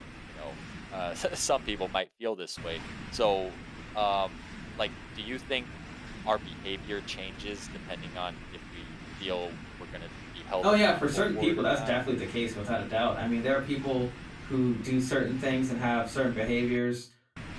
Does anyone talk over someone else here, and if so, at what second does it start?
10.6 s

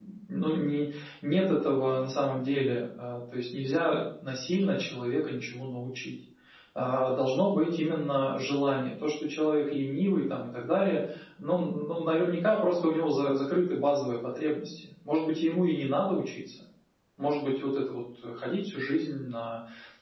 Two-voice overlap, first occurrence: none

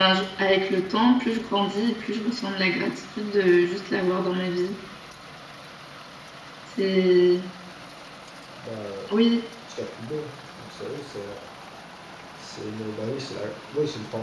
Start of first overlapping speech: none

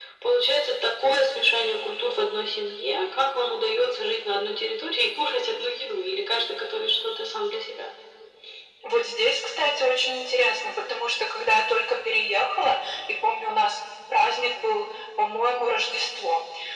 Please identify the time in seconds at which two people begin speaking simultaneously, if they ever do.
none

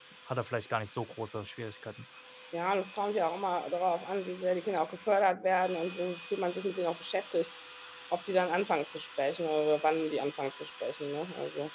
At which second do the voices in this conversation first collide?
none

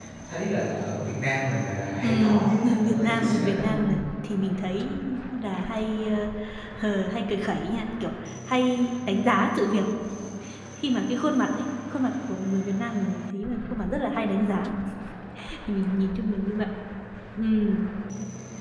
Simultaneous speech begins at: 2.0 s

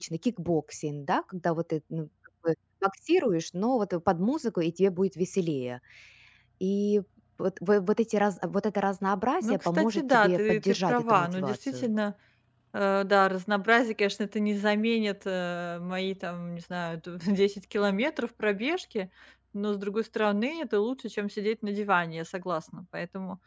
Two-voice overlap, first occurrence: 9.4 s

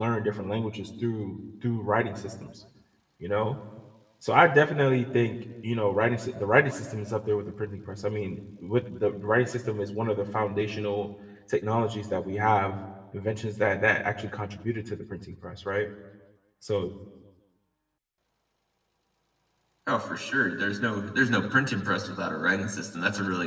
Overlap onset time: none

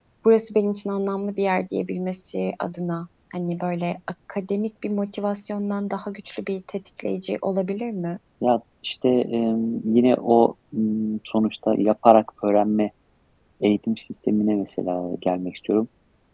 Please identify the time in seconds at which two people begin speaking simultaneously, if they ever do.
none

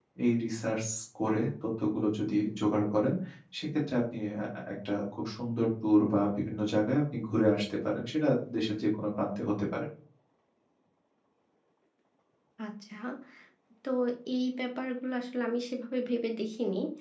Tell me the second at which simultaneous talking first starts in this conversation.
none

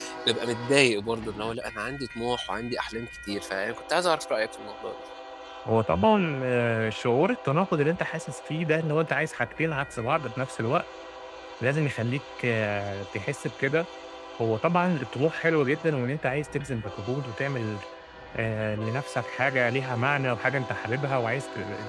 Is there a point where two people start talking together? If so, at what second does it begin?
none

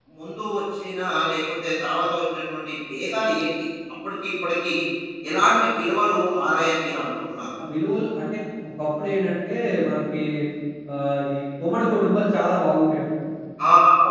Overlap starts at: none

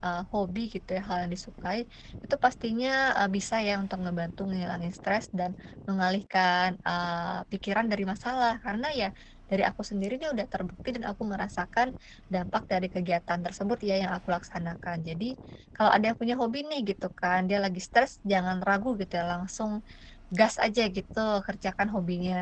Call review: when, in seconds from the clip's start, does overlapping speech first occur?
none

